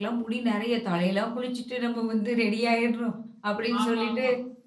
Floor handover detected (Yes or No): No